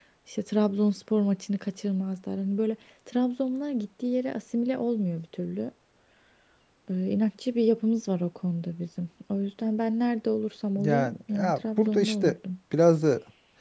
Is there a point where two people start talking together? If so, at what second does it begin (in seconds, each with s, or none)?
10.8 s